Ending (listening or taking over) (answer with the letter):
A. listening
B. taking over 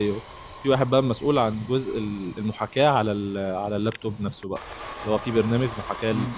A